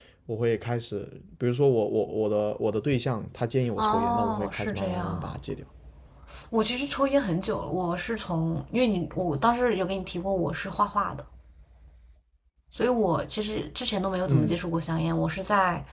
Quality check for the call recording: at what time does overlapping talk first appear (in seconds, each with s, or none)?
3.8 s